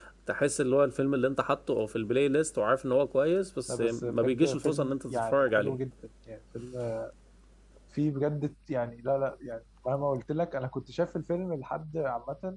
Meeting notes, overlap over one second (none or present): present